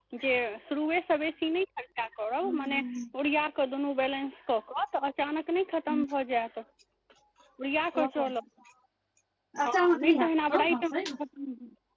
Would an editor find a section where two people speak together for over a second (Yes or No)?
Yes